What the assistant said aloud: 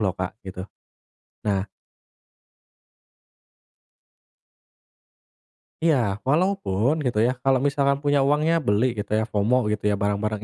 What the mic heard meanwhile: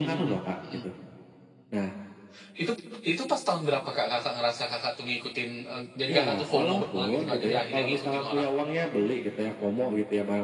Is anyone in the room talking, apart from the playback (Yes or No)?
Yes